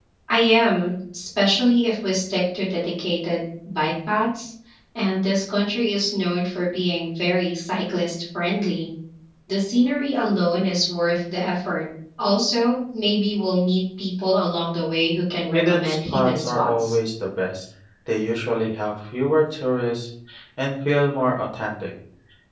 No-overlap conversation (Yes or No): No